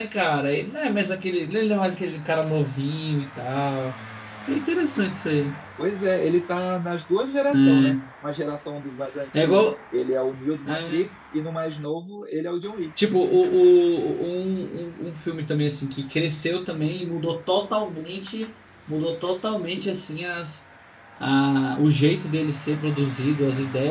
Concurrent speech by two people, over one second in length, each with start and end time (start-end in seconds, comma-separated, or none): none